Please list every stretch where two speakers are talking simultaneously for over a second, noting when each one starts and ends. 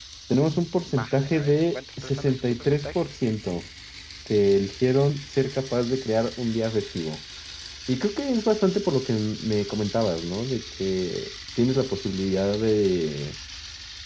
0.9-3.1

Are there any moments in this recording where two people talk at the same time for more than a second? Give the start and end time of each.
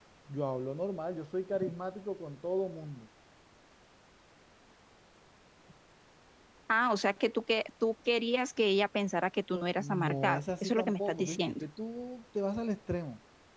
9.8-11.6

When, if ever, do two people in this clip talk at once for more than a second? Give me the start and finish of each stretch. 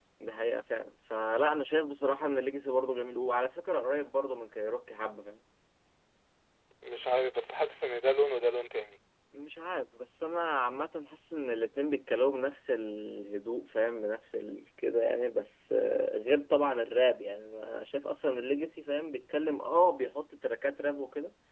none

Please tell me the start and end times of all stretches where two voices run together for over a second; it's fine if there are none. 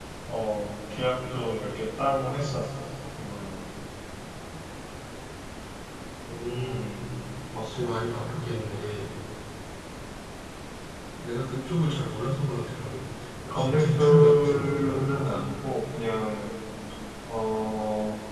13.5-15.4

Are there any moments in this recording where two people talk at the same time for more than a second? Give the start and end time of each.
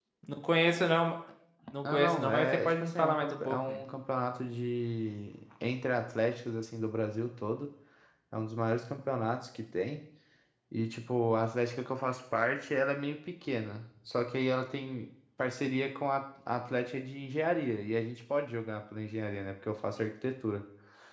1.9-3.8

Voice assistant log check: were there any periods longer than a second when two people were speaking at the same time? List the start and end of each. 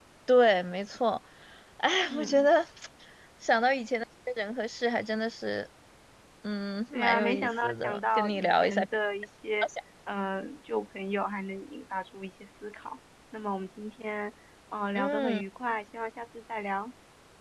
6.9-8.8

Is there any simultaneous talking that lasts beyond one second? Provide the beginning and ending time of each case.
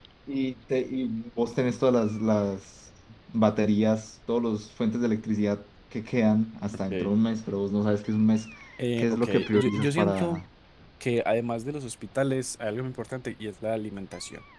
9.0-10.4

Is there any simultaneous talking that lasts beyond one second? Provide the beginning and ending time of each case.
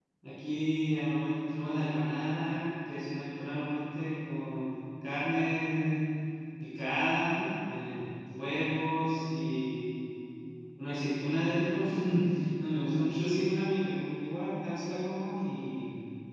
none

